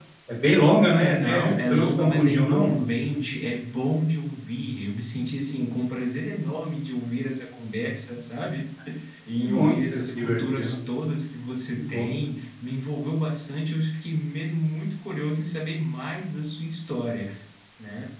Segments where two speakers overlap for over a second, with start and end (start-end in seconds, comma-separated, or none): 1.0-2.7, 9.4-10.8